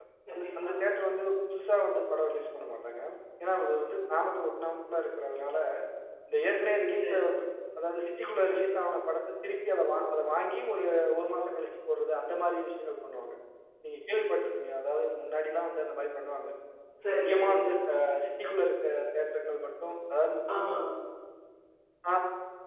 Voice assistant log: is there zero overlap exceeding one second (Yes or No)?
Yes